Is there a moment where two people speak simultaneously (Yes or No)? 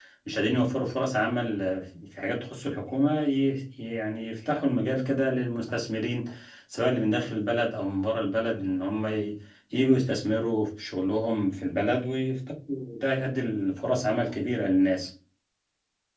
No